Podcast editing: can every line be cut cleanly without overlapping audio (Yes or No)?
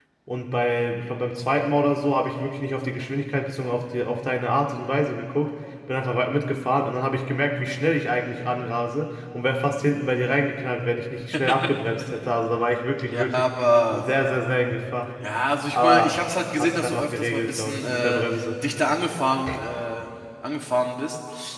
No